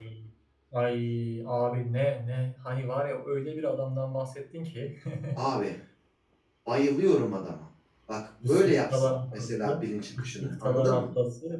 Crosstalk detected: Yes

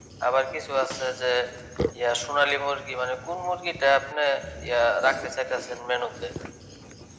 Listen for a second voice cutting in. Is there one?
No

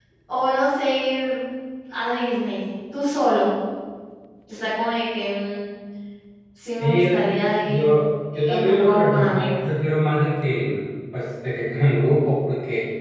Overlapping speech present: Yes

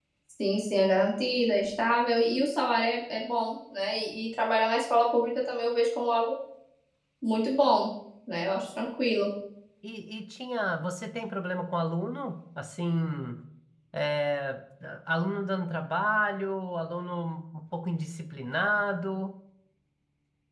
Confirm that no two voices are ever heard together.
Yes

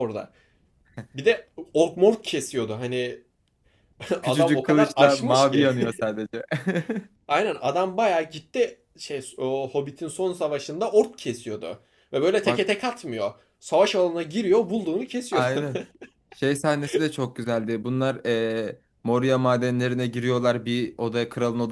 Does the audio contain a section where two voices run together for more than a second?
Yes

